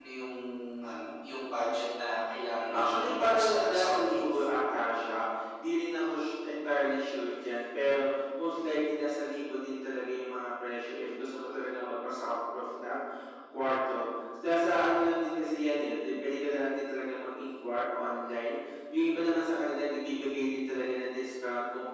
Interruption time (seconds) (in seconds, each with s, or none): 2.7 s